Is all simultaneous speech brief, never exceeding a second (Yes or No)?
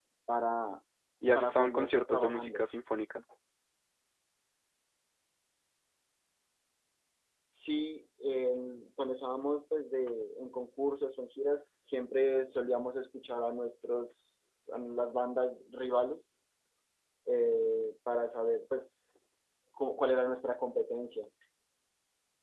No